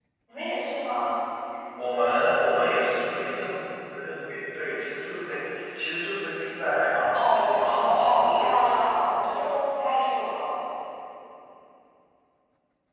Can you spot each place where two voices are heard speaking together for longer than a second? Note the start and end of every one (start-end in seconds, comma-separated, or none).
7.1-8.5